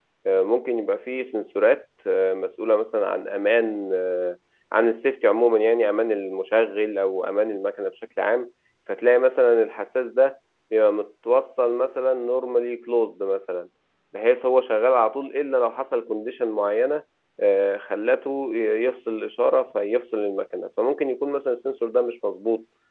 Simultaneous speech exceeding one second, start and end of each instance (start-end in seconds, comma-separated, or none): none